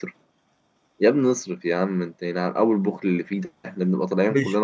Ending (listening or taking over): listening